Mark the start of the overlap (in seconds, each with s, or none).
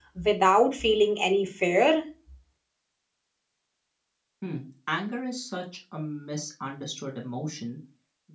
none